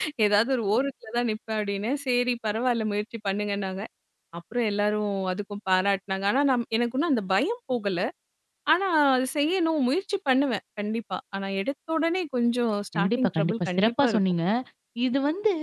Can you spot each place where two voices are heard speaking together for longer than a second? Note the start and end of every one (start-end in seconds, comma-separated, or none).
12.9-14.2